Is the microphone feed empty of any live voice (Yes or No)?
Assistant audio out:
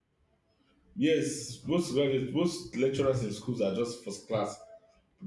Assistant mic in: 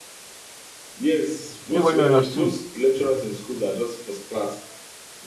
No